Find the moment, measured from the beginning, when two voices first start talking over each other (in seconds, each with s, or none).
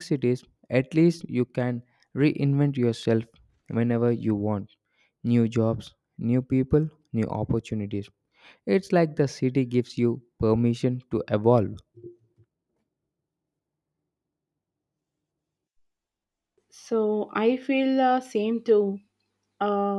none